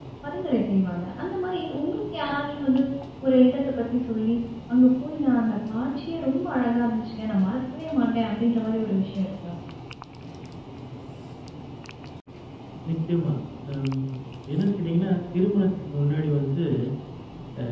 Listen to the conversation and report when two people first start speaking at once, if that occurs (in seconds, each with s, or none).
none